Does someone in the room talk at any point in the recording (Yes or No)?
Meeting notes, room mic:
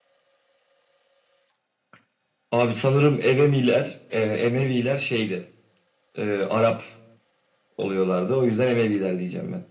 No